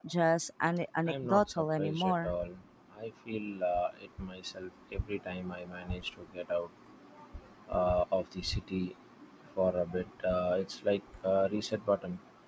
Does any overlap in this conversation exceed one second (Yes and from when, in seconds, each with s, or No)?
Yes, from 1.1 s